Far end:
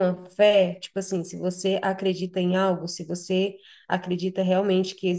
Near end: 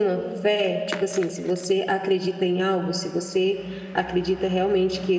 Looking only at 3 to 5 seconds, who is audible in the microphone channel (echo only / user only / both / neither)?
echo only